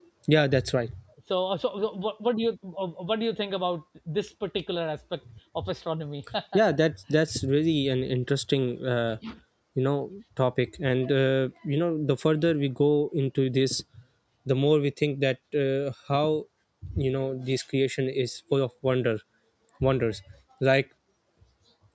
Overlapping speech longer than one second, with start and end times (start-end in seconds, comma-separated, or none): none